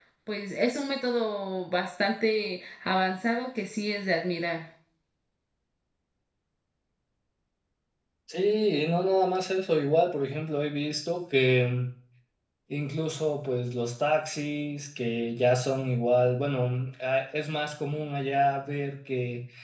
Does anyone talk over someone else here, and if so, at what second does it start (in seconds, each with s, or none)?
none